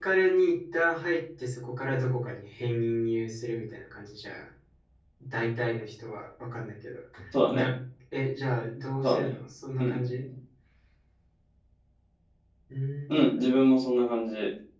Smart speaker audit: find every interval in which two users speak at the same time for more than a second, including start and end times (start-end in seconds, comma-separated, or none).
none